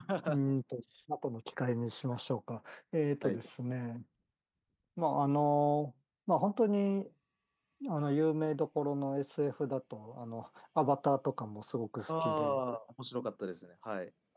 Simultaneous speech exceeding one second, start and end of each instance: none

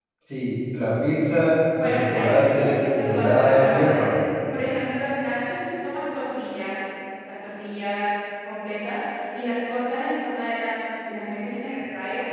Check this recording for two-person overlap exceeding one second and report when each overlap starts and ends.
1.8-4.1

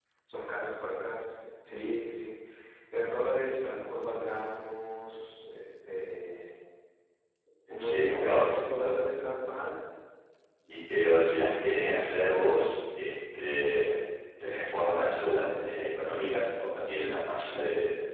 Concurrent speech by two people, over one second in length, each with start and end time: 7.7-8.9

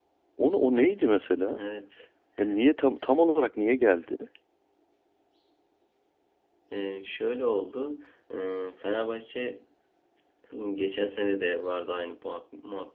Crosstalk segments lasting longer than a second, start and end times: none

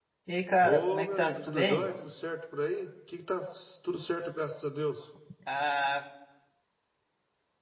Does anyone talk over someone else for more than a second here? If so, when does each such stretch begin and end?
0.6-1.9

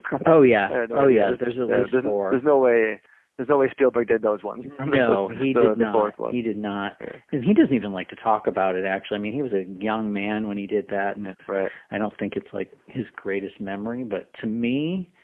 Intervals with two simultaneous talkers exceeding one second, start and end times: 0.7-2.4, 4.8-6.4

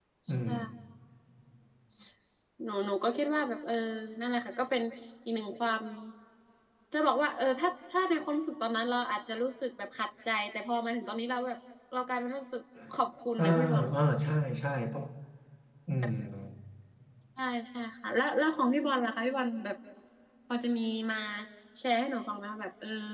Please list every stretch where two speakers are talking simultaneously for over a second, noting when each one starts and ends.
none

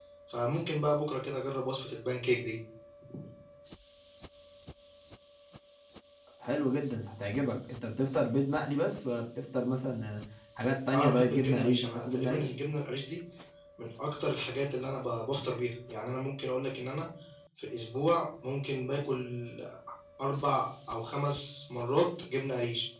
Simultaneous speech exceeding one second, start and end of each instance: 10.9-12.5

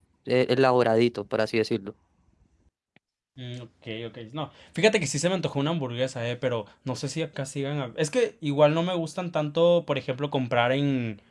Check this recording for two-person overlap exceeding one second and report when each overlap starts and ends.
none

